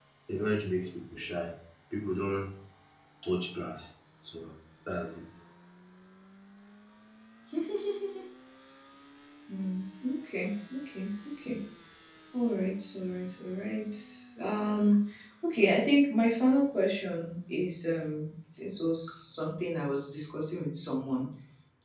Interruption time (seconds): none

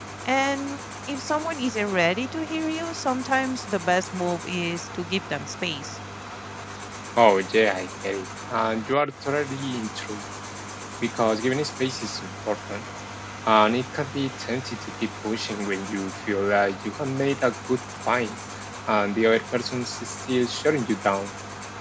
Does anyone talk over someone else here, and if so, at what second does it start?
none

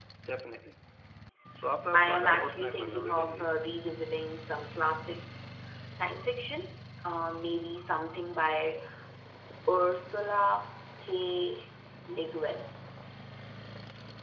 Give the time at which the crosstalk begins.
1.9 s

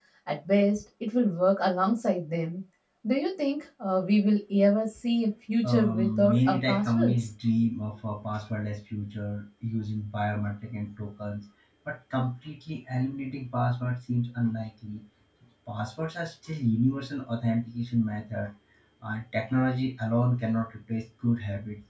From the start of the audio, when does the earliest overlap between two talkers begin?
5.6 s

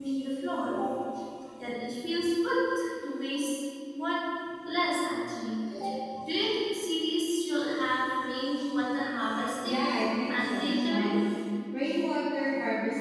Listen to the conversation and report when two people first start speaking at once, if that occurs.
9.6 s

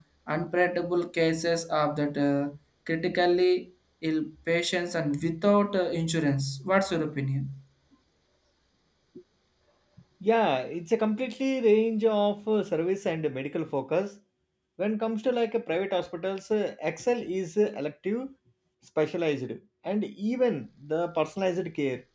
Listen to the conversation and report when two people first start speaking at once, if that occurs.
none

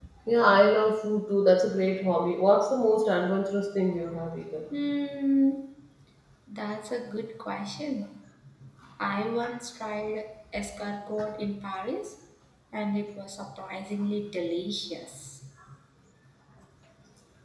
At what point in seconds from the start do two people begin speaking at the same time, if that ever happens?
none

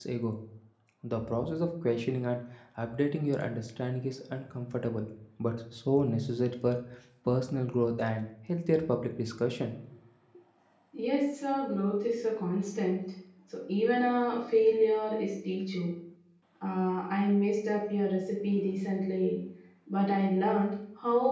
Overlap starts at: none

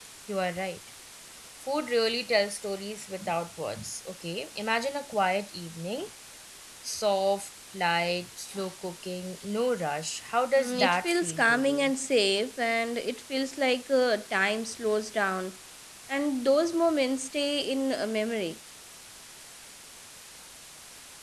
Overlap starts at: 10.6 s

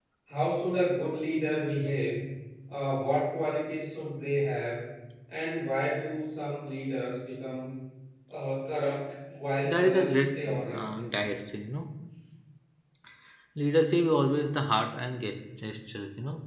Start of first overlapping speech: 9.6 s

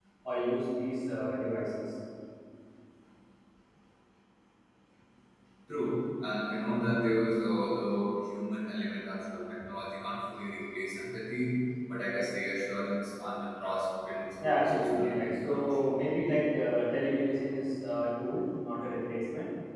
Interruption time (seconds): 14.4 s

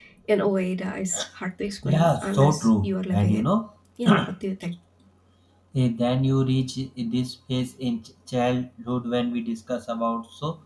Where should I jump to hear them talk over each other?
1.8 s

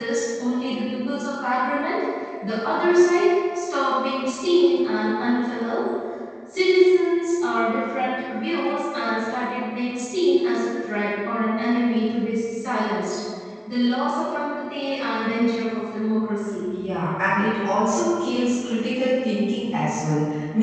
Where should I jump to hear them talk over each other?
none

